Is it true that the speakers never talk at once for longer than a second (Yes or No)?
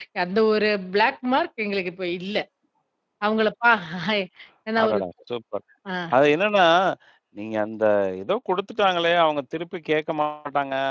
Yes